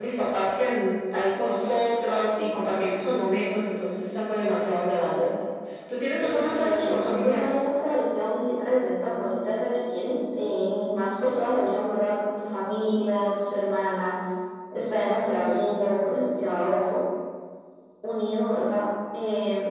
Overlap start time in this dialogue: 6.2 s

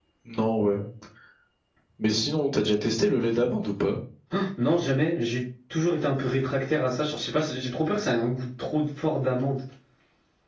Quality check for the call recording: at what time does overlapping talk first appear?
none

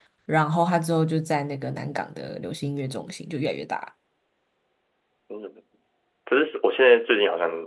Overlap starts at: none

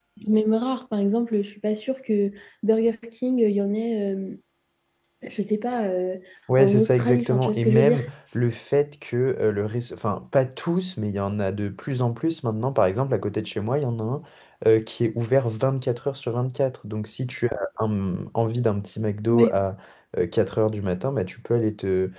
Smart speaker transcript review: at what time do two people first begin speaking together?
6.6 s

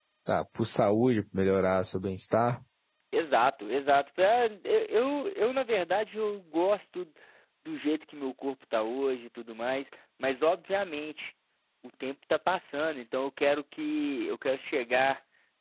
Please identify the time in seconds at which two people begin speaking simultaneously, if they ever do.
none

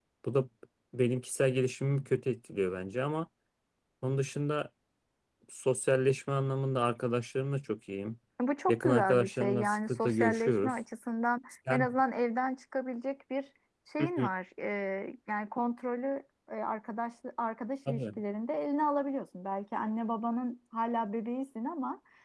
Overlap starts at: 8.7 s

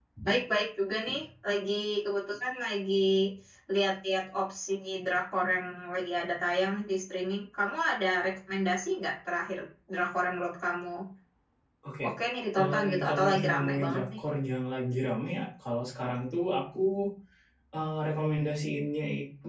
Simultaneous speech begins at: 12.6 s

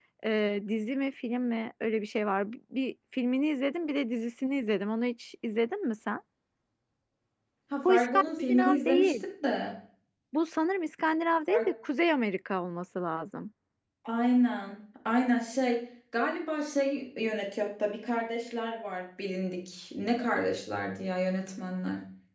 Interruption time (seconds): 7.8 s

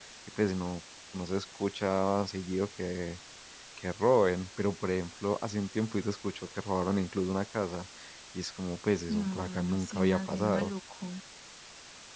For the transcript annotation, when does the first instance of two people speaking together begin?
9.1 s

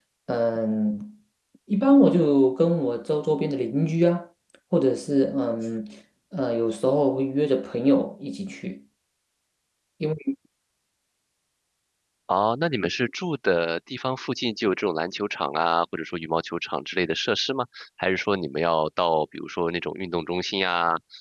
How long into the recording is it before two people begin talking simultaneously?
none

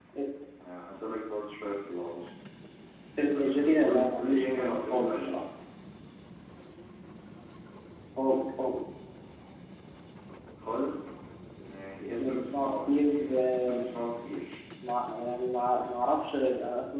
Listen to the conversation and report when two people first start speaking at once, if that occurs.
3.4 s

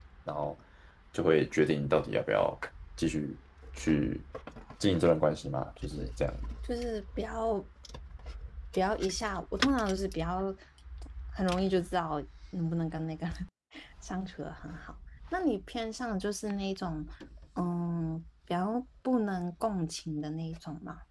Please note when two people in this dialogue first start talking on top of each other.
none

